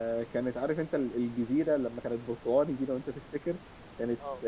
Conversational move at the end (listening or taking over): listening